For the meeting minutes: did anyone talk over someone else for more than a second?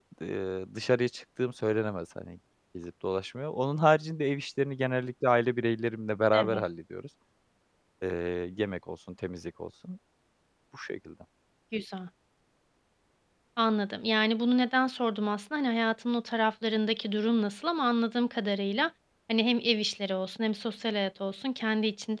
No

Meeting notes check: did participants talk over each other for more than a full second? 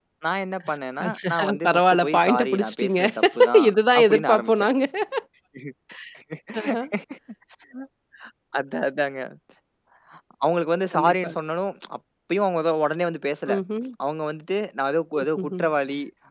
Yes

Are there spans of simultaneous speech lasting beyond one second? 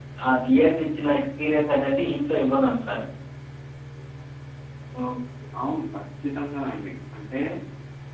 No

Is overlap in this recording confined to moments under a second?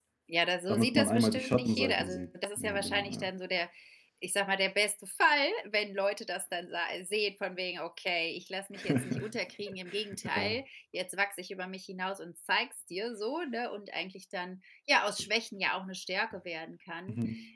No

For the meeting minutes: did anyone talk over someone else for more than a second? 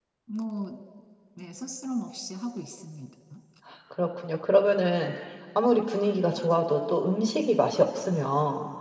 No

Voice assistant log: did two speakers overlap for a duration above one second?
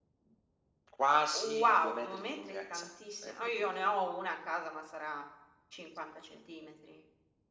Yes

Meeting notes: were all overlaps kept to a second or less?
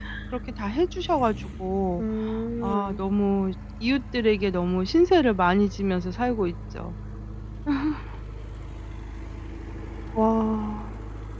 Yes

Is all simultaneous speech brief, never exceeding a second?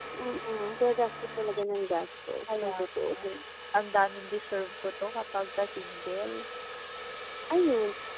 Yes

